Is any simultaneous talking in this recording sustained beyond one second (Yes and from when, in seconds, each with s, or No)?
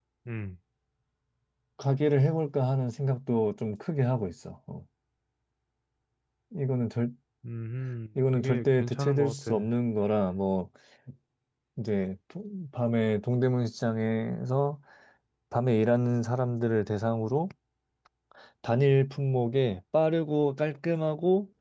Yes, from 8.4 s